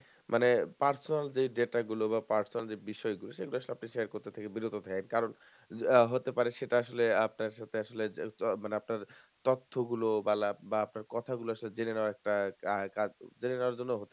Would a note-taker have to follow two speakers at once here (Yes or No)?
No